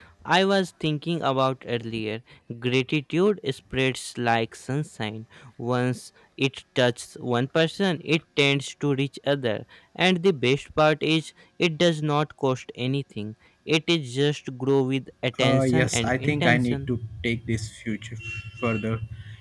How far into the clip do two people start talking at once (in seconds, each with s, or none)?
15.3 s